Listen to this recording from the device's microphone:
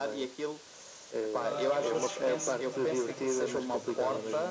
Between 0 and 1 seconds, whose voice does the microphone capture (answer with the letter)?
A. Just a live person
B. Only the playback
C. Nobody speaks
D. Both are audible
B